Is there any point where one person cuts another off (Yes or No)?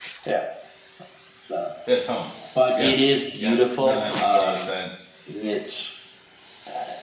Yes